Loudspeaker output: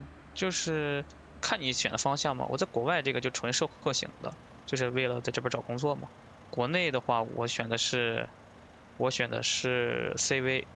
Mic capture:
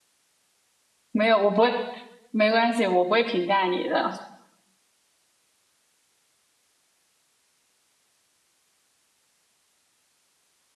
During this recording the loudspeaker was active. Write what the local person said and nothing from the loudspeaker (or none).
没有，我不会，没关系，我不会评价你的，